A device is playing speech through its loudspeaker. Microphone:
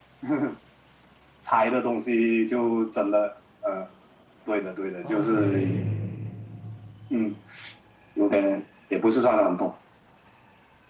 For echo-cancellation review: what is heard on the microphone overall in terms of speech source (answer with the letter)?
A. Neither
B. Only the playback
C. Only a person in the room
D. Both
D